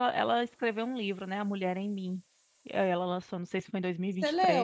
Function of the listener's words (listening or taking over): taking over